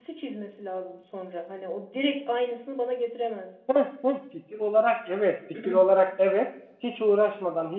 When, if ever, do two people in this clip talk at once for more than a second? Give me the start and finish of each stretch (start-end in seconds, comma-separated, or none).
none